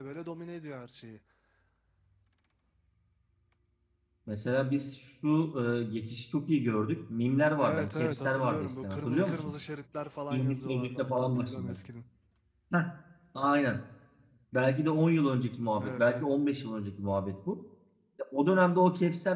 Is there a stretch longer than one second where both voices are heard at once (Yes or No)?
Yes